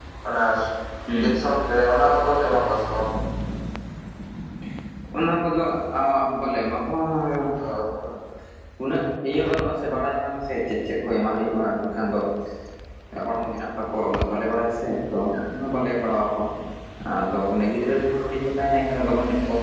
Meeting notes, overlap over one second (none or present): none